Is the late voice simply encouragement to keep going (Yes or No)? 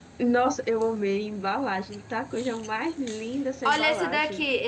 No